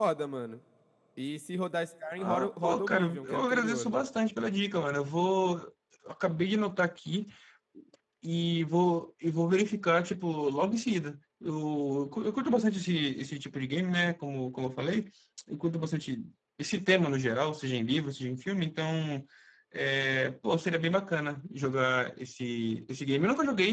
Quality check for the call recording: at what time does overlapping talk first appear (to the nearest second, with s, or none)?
2 s